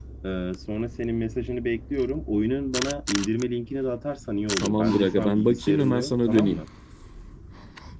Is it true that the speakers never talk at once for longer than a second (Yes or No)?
No